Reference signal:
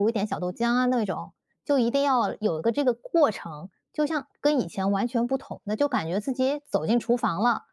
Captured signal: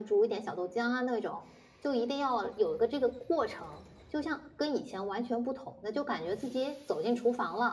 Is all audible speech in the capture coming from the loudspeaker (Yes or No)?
Yes